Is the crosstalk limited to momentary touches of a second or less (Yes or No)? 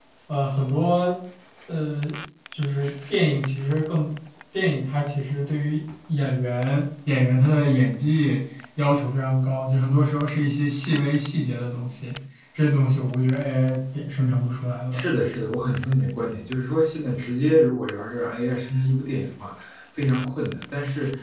Yes